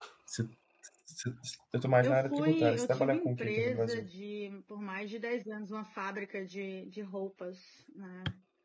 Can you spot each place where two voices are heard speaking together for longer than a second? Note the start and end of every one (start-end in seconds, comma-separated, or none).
2.0-4.1